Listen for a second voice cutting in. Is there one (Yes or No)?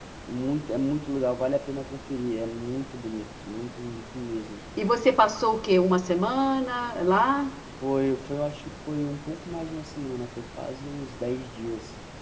No